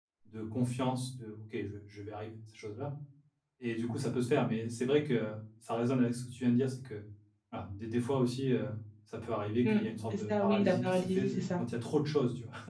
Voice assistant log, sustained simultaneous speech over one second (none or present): present